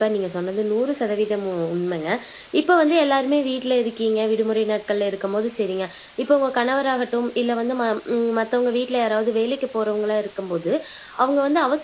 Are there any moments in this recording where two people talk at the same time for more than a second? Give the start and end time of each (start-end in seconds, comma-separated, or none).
none